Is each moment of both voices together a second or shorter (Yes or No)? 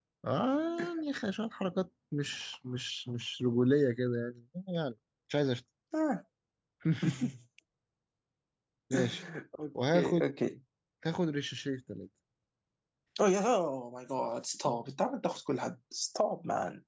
Yes